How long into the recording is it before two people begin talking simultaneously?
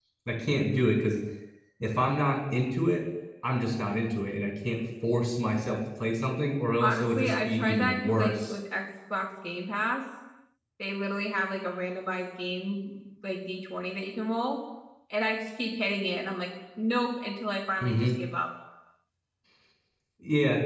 7 s

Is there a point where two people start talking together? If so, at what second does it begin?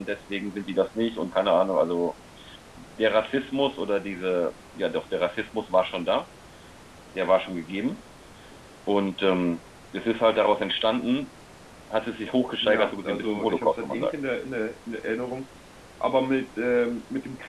13 s

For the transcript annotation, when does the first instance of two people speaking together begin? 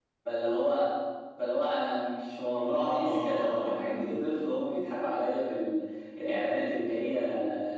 3 s

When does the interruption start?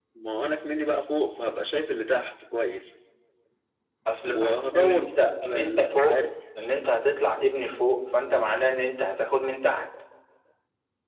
4 s

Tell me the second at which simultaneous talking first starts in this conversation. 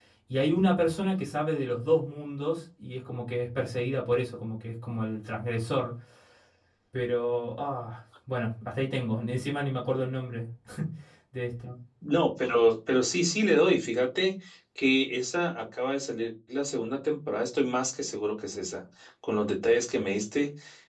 none

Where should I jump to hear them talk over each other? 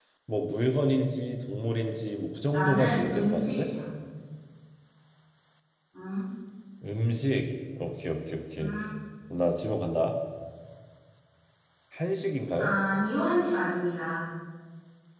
2 s

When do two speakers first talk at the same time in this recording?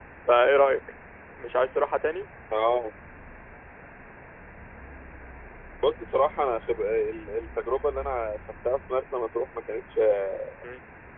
none

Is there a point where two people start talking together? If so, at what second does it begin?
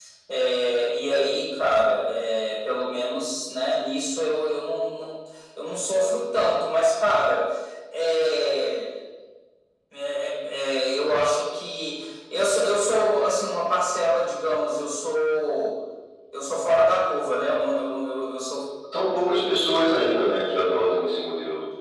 none

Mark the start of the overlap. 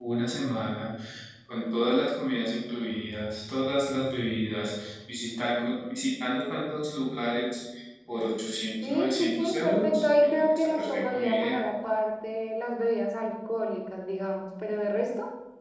9 s

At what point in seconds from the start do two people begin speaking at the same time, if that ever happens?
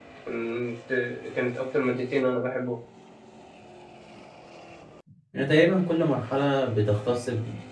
none

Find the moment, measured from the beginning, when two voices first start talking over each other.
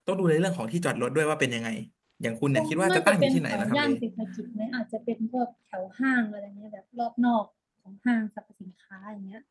3 s

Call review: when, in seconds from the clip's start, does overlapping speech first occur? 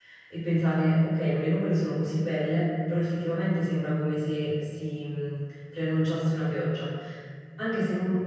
none

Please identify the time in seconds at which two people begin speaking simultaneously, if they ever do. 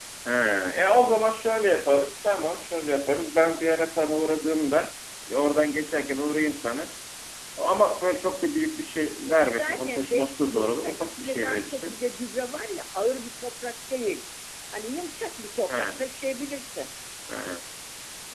9 s

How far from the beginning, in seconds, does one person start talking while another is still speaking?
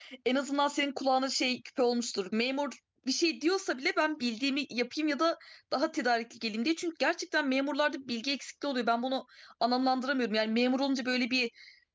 none

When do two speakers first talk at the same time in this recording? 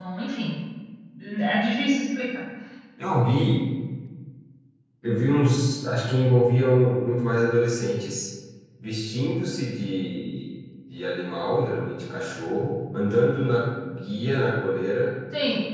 none

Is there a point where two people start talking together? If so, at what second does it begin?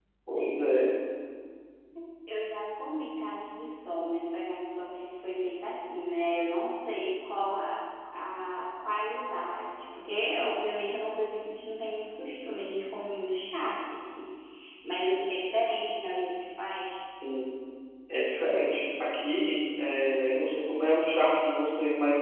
none

